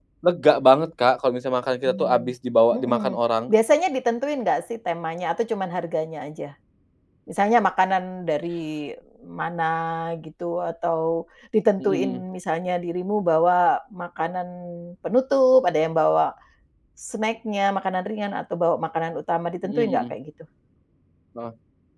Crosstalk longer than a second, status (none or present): none